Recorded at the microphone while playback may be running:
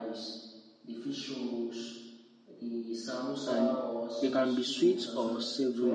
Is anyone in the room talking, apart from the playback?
Yes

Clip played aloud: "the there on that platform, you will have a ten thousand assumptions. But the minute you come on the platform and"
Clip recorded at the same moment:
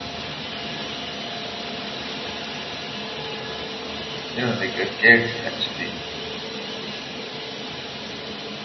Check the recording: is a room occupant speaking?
Yes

